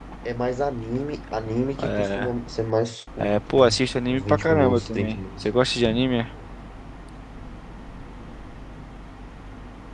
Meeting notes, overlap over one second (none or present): present